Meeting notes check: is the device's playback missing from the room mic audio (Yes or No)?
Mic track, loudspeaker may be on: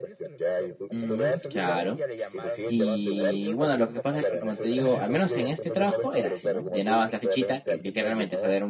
No